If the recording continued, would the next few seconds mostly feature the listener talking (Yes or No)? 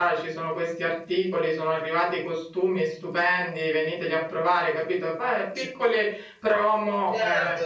Yes